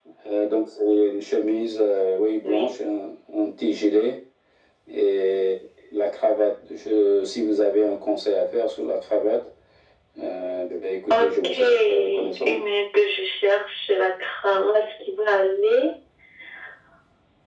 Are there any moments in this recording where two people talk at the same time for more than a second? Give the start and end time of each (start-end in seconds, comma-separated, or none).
11.1-12.6